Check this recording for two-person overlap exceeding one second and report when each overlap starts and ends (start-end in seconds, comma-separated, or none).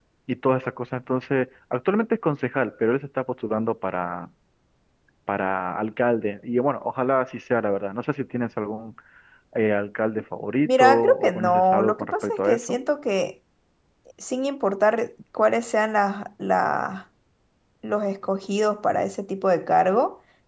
10.7-12.8